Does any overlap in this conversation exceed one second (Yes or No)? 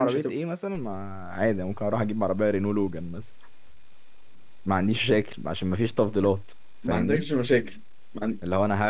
No